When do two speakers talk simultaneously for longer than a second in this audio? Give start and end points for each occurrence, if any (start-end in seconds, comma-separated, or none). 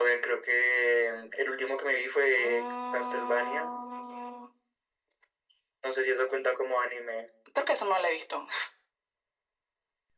2.4-3.7